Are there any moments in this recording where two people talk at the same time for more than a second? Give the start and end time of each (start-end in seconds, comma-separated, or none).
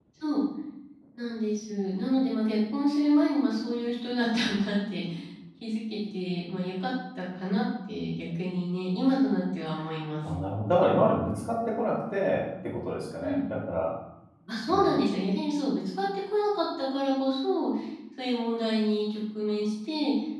none